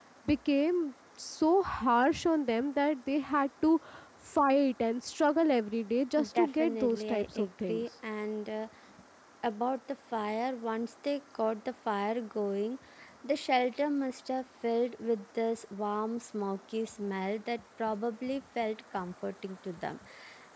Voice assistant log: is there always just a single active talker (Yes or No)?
No